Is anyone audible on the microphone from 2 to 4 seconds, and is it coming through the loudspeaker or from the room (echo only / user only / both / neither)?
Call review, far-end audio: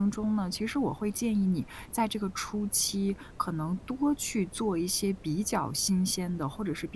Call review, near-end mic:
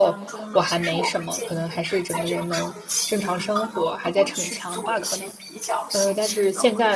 both